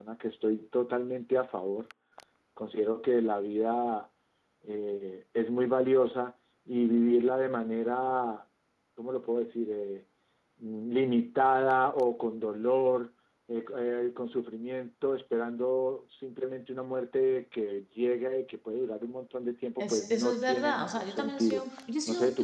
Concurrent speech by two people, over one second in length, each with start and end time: 19.8-21.7

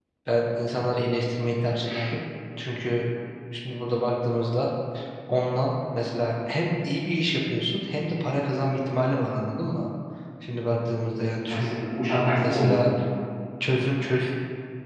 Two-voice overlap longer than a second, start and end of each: none

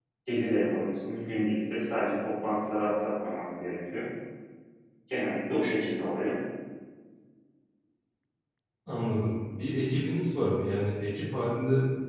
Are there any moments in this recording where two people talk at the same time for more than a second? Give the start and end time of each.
none

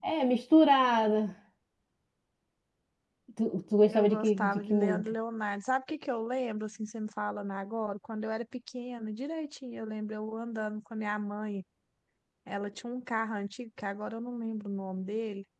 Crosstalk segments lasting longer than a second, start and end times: 3.9-5.1

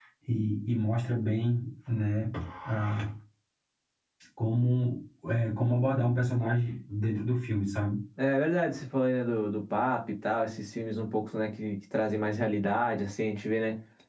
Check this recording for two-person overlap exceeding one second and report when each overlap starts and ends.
none

